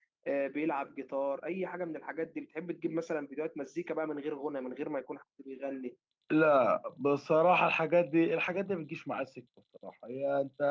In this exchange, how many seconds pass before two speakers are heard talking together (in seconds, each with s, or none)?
none